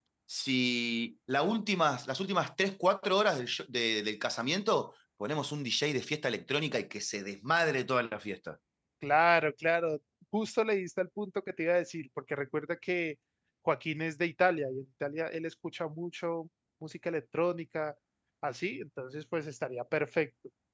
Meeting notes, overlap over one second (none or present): none